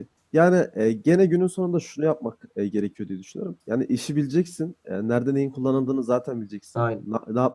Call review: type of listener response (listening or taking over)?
listening